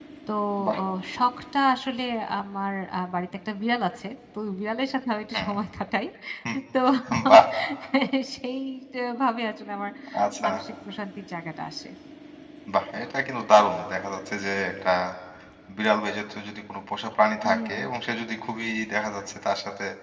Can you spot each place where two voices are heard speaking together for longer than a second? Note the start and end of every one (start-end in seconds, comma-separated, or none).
none